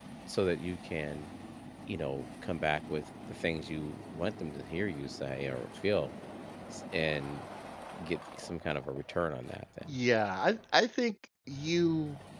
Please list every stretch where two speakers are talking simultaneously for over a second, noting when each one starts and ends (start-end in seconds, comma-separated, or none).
none